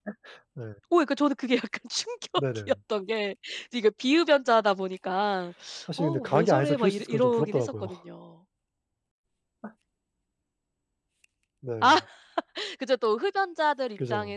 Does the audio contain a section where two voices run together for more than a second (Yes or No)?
Yes